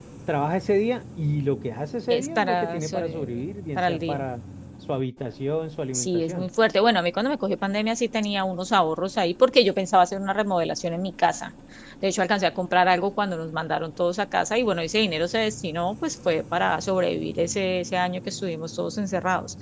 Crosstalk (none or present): present